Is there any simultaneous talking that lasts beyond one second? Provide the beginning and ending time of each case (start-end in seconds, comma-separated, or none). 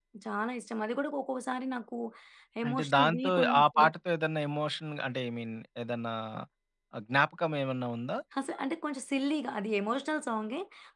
2.7-3.9